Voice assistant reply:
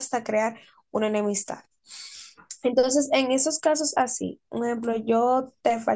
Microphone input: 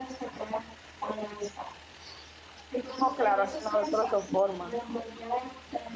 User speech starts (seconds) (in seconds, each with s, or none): 3.0 s